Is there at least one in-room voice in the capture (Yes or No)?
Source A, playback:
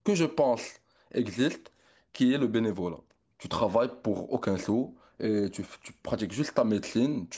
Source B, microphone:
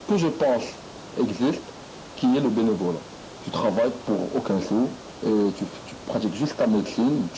No